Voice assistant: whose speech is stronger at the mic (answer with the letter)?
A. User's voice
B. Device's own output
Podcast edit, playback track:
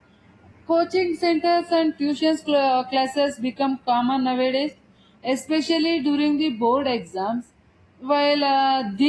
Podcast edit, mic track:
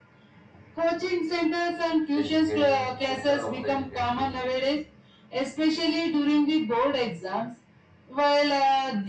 B